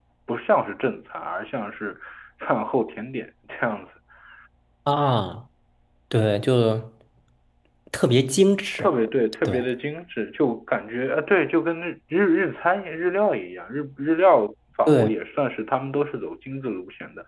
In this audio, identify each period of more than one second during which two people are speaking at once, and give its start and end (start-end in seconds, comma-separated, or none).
none